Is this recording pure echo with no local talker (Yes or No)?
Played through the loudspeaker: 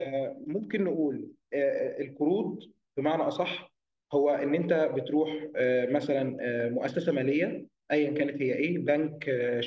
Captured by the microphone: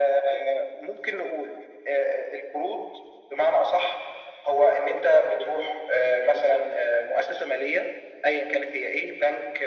Yes